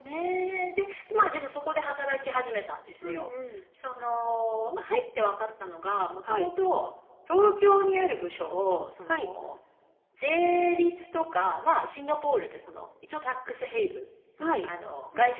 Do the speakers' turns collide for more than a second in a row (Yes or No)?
No